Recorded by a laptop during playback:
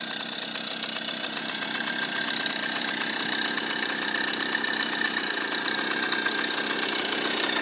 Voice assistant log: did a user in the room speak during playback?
No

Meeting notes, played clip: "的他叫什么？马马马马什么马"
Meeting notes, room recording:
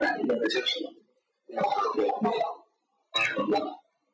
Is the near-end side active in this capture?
No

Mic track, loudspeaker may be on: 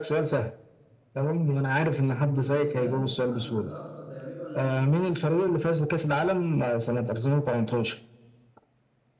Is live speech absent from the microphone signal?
No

